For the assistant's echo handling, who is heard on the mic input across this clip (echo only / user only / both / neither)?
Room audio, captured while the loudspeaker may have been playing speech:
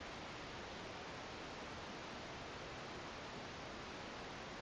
neither